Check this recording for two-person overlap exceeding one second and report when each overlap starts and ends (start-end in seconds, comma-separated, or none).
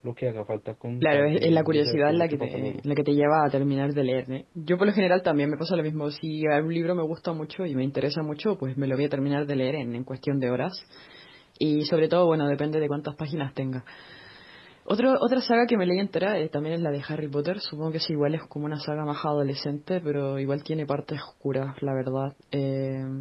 1.0-2.8